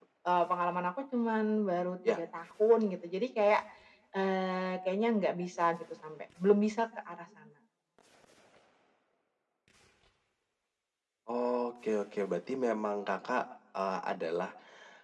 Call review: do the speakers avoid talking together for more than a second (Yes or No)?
Yes